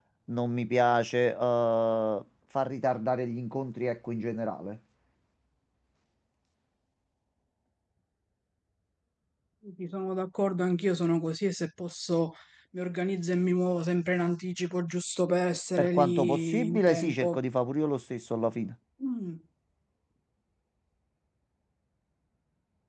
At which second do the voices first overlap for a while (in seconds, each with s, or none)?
15.8 s